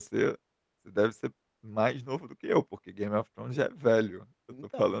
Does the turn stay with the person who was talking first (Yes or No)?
Yes